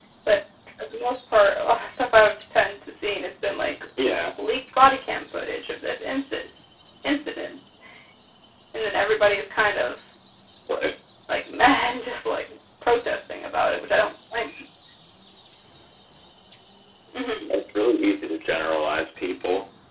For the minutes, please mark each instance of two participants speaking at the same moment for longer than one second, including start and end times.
none

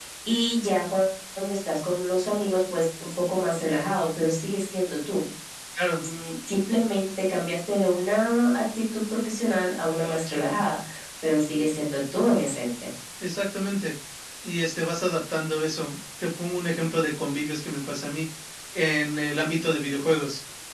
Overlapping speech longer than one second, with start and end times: none

